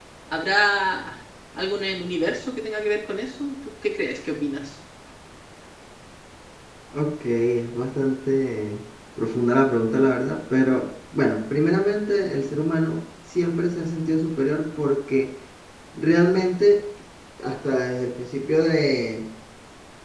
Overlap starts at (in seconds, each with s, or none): none